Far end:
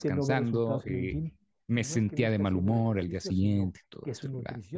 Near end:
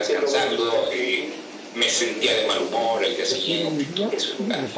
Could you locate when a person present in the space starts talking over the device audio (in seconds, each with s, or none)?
3.2 s